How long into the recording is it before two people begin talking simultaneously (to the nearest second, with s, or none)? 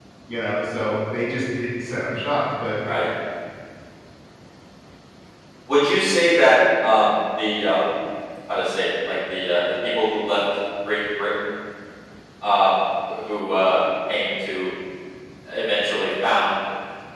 none